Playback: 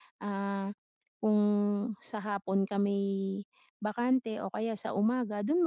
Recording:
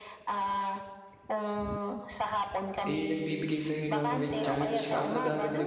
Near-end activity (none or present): present